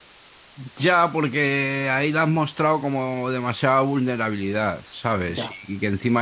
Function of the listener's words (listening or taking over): listening